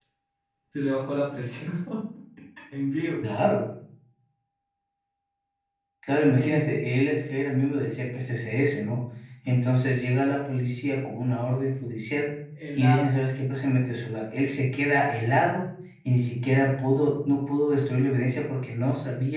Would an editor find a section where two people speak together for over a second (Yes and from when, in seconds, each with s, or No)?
No